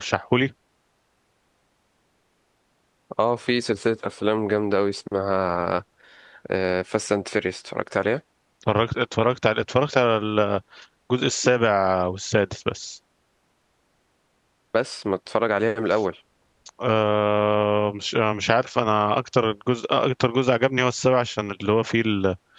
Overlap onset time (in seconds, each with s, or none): none